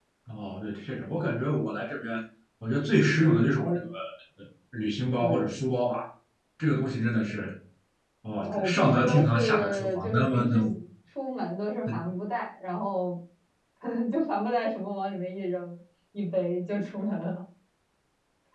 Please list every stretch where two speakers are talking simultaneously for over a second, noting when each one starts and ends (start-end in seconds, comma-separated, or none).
8.5-10.6